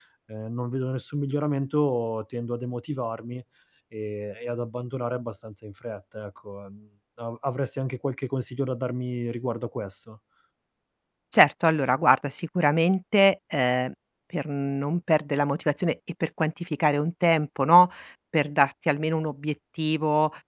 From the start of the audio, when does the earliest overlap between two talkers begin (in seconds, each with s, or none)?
none